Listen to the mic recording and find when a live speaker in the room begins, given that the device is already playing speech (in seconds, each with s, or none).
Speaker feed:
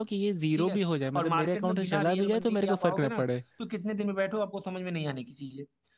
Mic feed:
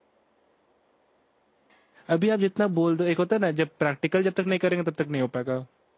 2.1 s